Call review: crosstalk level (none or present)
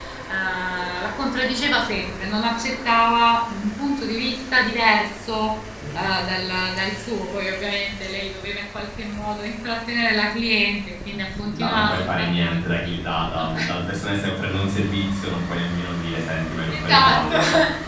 present